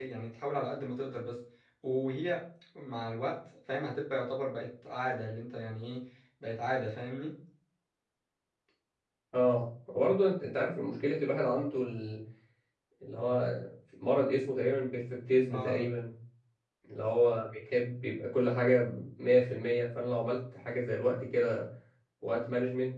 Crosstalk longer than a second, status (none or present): none